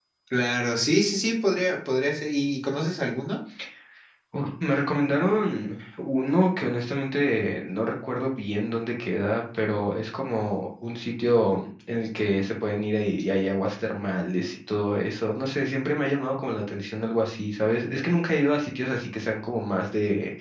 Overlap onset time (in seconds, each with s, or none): none